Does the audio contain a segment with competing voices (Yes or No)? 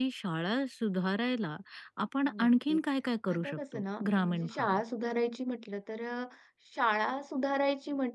Yes